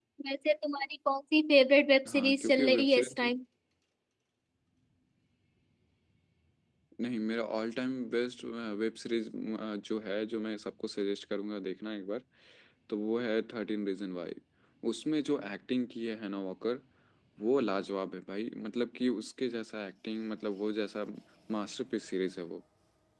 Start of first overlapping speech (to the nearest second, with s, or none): 2 s